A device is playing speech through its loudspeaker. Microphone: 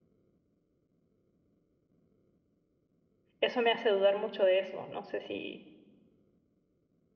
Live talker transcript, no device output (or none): eso me hace dudar mucho de eso. No sé si,